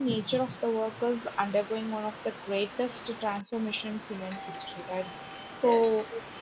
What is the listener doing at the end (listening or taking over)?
listening